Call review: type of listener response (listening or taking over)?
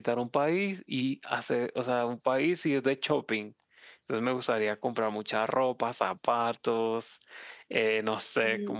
listening